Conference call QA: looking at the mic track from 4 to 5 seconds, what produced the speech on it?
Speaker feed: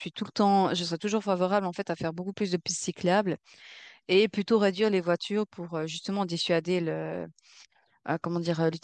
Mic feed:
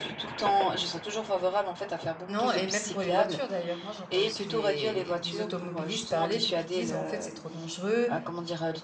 both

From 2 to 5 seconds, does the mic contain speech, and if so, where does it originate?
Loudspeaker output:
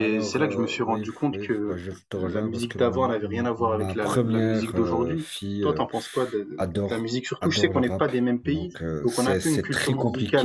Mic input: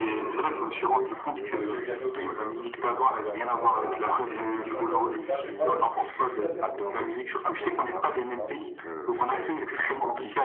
both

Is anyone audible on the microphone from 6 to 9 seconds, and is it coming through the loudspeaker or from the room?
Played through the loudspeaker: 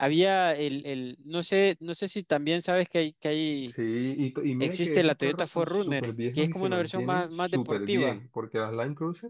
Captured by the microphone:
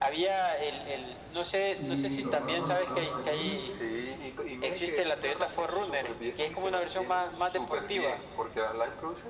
echo only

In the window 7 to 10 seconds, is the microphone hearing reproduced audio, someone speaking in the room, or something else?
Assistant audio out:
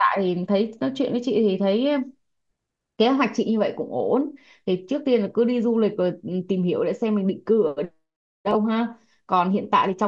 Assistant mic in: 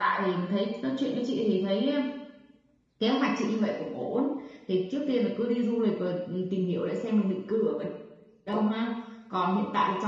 echo only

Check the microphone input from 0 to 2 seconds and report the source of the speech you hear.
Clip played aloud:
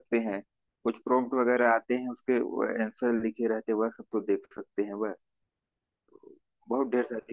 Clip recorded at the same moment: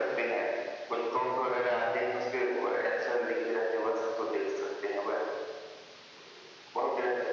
echo only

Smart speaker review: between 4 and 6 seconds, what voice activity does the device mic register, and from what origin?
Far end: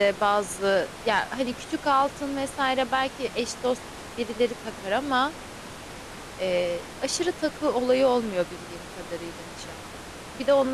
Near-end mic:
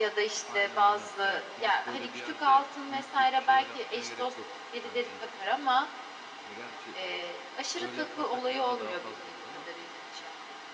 both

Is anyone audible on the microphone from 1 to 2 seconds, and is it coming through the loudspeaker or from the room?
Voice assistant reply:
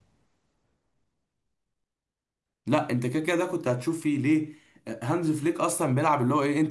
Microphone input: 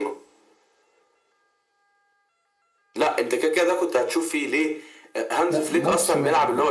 neither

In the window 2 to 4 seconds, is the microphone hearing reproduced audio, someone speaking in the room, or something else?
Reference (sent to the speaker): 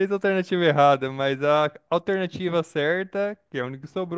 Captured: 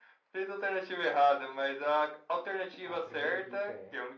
both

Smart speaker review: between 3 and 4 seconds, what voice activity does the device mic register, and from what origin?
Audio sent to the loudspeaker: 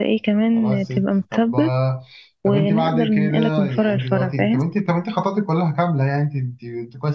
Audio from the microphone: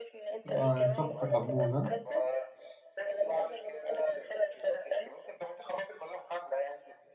echo only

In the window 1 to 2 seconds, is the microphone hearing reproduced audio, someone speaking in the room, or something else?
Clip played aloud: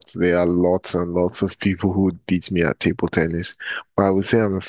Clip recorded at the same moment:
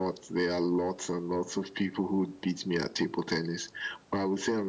echo only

